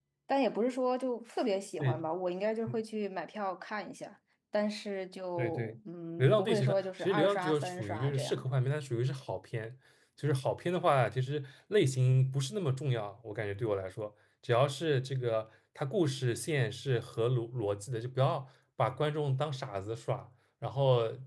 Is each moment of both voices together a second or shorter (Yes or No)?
No